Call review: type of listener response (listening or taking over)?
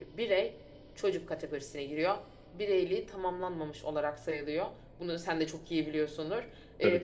listening